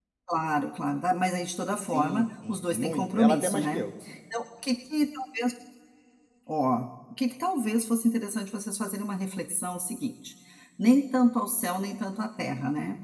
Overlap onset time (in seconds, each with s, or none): 1.9 s